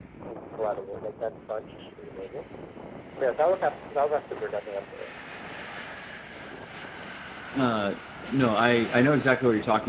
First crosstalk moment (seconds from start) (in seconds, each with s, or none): none